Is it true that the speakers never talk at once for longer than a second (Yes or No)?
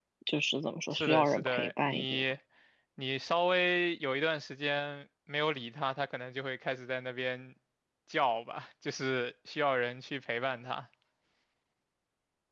No